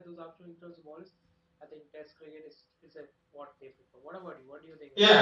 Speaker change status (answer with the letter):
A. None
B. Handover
B